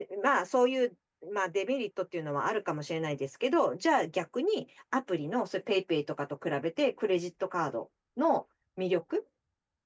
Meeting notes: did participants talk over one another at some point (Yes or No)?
No